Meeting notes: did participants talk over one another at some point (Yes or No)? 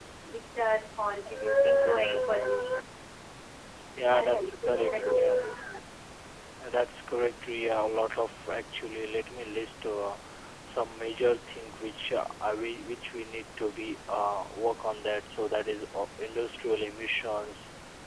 Yes